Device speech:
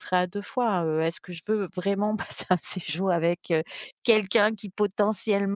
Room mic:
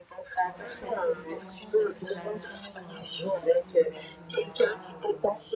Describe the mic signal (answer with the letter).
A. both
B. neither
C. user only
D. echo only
A